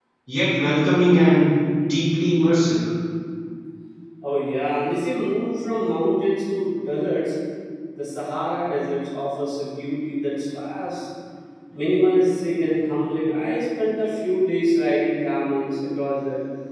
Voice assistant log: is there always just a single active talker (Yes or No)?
Yes